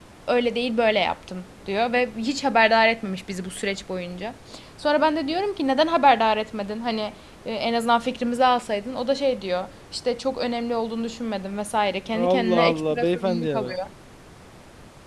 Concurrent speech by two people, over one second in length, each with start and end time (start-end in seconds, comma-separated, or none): 12.1-13.7